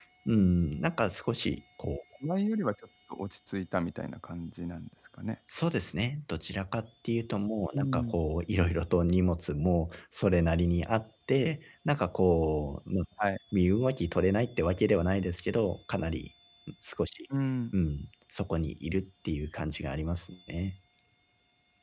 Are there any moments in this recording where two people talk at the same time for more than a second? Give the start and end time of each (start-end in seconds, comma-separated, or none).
none